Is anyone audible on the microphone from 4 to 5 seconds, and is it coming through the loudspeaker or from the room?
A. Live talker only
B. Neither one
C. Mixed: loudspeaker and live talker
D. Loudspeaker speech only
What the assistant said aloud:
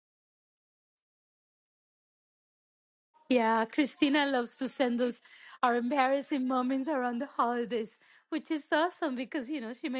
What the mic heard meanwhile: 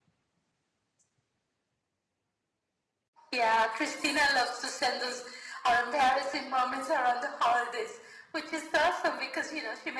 D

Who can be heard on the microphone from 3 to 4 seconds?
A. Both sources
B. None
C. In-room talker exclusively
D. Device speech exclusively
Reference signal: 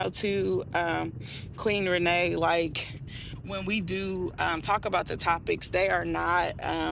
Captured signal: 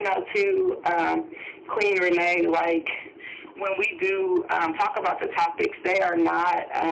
D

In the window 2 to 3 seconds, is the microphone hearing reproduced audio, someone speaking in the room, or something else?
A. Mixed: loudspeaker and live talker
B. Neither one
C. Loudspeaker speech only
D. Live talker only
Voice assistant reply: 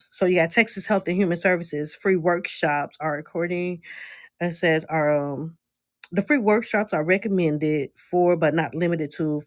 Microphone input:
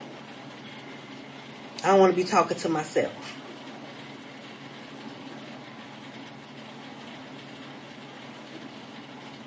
D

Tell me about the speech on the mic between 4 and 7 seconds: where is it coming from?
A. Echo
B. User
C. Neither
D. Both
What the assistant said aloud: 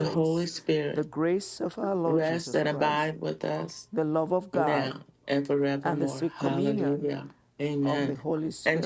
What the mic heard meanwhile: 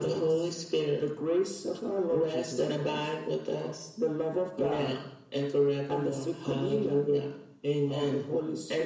A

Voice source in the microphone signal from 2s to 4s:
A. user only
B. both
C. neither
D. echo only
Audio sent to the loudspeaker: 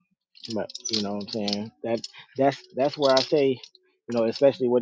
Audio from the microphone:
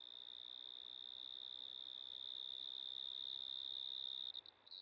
C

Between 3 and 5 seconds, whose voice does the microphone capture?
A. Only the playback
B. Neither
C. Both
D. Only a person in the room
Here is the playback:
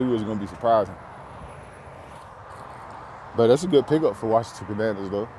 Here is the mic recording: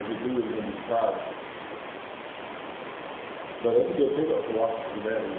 A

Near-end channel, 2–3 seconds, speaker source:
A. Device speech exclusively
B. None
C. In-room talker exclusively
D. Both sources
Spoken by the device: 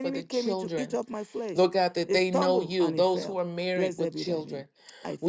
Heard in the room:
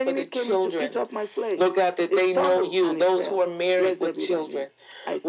A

